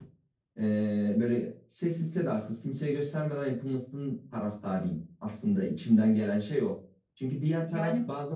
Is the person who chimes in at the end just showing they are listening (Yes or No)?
Yes